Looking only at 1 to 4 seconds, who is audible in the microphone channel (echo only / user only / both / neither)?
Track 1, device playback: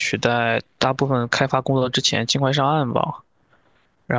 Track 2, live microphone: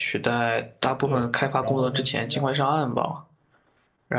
both